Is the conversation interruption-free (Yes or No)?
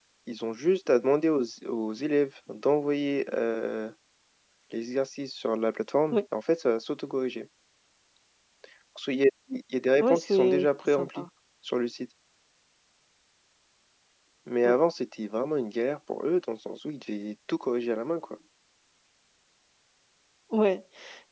No